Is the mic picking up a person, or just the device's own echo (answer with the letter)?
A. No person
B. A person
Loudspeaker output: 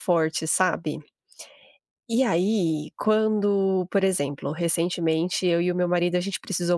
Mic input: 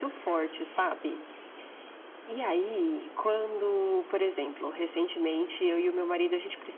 A